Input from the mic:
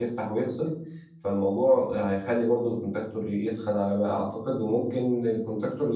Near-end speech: present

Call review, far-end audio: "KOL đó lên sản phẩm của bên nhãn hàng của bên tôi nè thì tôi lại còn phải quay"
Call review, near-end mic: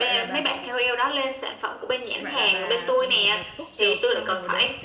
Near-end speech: present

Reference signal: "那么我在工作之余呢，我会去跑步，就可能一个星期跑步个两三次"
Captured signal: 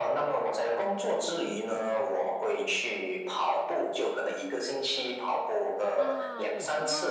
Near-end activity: present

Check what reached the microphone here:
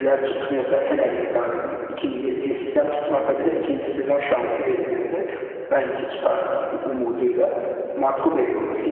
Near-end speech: none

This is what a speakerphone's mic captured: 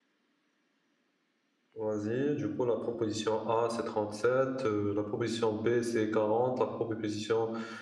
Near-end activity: present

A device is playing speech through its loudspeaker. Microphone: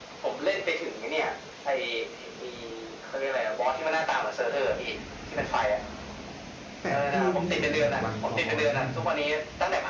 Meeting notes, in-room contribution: present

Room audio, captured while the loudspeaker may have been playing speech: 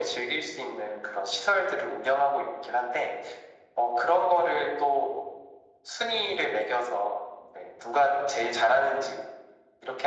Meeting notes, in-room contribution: none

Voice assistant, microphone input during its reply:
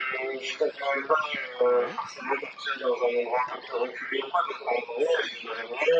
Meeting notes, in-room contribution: present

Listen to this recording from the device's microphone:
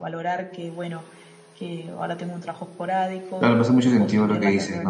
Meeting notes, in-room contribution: present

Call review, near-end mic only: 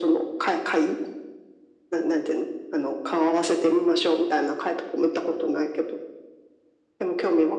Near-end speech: none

